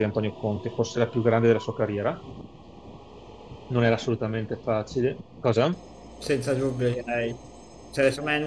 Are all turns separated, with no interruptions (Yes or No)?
Yes